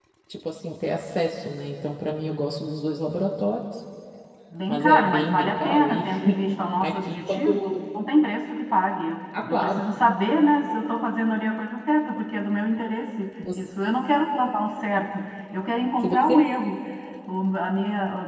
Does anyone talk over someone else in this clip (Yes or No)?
Yes